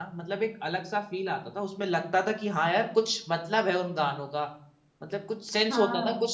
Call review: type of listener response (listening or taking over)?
listening